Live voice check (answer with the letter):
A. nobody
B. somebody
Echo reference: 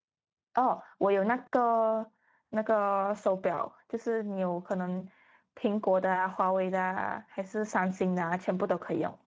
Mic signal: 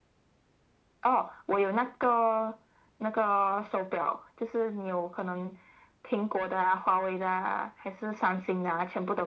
A